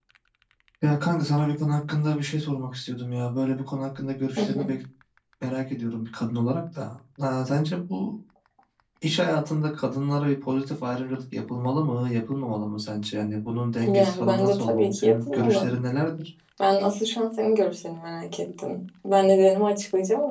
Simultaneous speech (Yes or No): Yes